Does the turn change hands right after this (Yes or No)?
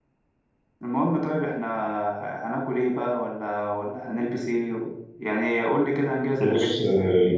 Yes